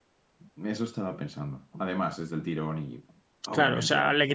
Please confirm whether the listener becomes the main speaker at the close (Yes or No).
Yes